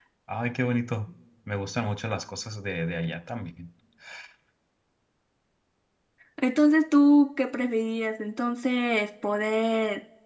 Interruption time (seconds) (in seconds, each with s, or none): none